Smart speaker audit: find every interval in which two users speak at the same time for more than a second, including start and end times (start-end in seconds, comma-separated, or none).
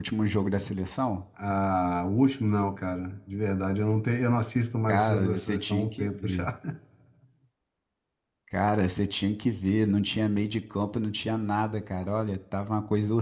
4.9-6.5